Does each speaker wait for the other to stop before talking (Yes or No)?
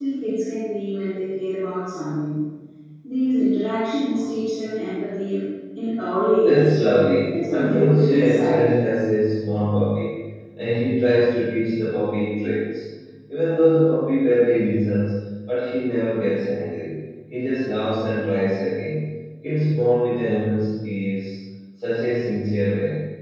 No